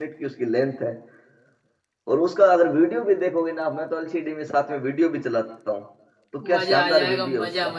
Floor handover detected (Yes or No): Yes